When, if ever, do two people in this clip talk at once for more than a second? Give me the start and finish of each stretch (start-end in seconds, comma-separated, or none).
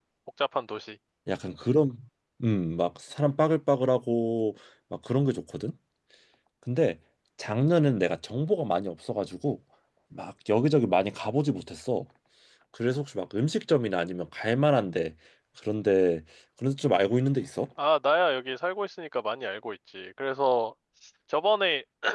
none